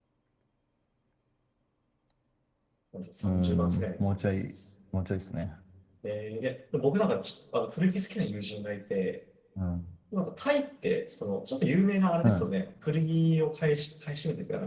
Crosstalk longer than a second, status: present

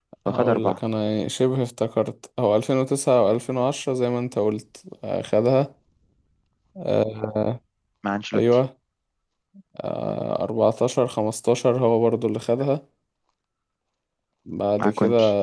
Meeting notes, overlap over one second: none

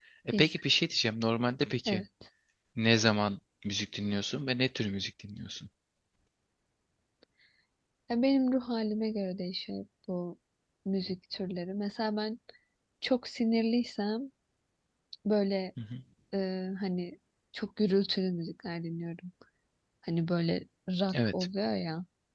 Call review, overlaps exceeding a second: none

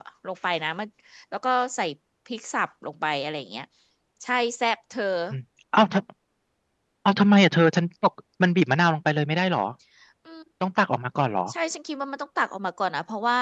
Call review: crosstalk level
none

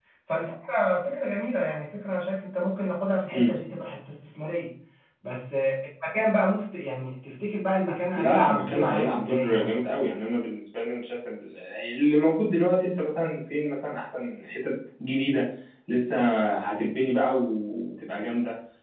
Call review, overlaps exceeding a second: present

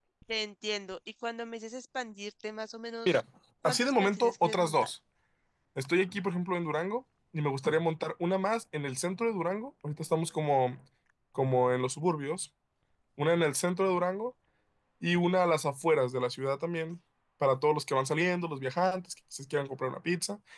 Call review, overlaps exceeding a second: present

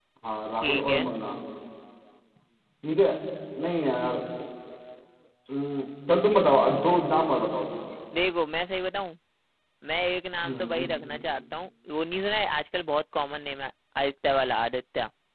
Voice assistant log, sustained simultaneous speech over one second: none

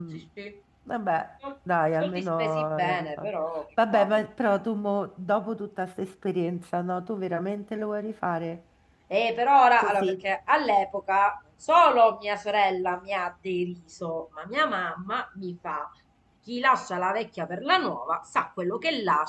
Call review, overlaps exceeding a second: present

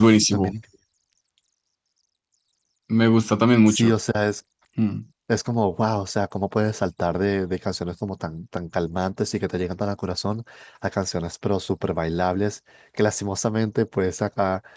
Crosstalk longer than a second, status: none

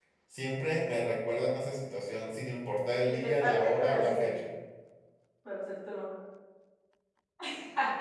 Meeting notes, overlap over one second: present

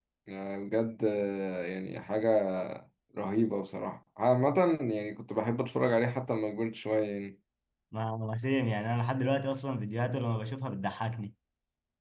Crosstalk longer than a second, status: none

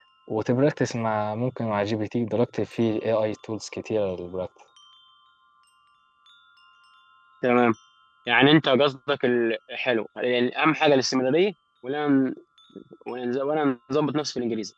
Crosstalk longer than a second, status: none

